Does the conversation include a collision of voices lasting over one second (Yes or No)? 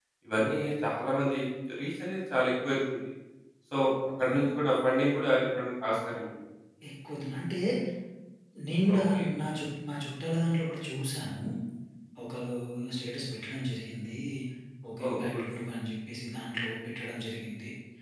No